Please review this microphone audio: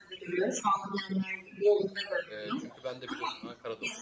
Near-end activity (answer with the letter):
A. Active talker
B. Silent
A